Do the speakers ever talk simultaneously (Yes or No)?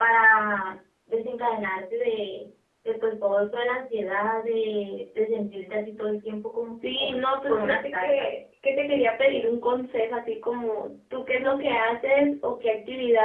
Yes